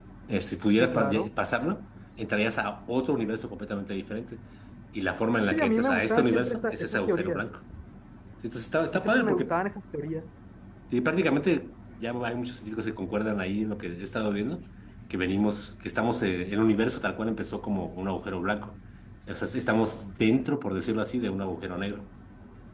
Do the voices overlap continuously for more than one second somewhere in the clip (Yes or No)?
Yes